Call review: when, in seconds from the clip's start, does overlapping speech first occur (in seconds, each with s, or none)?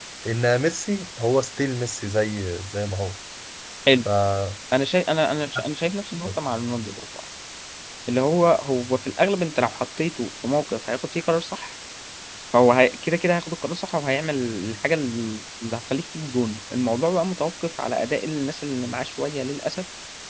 none